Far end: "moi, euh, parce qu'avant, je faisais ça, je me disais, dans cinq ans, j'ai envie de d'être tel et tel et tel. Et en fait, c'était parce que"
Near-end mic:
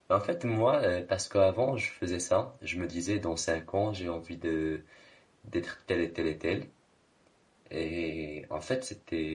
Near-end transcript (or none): none